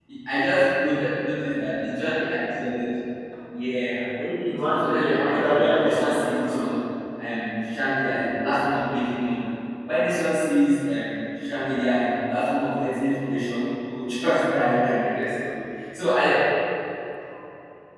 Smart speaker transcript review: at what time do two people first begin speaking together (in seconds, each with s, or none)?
4.5 s